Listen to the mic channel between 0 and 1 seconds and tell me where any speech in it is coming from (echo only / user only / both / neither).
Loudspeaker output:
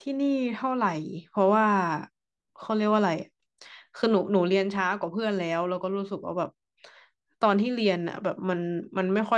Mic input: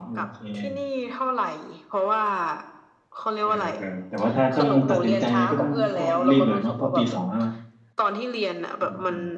both